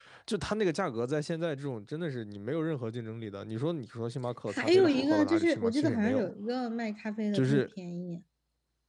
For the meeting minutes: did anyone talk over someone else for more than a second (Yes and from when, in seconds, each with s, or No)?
Yes, from 4.5 s